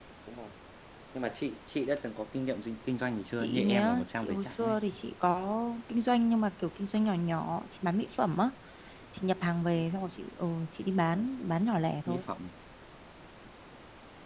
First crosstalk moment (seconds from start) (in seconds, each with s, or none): 3.4 s